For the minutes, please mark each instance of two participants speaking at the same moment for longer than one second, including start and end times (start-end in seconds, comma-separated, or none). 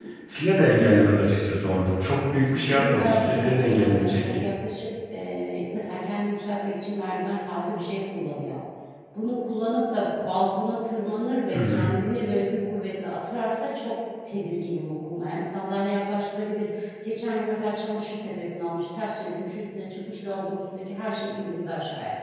2.7-4.4